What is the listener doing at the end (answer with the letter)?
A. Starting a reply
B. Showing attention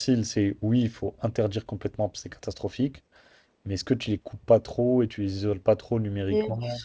A